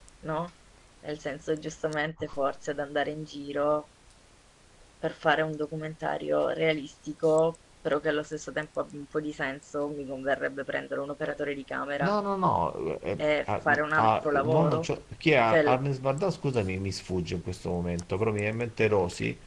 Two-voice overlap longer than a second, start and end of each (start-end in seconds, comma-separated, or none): 13.2-14.9